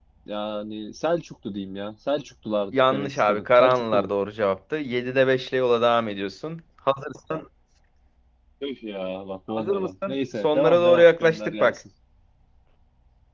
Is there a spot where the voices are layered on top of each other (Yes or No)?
Yes